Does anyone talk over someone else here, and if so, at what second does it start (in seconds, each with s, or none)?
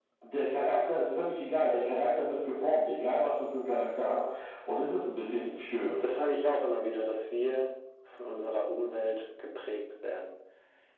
none